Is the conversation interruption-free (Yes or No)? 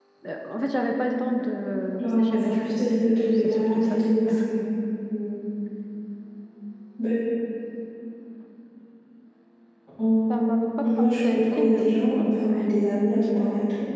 No